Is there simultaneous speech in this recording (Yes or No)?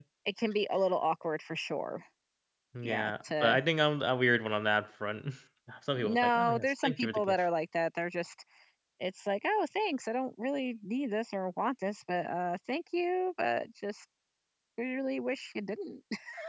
Yes